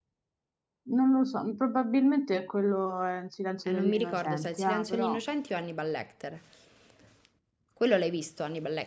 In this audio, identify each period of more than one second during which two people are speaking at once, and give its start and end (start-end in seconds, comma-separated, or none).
3.7-5.2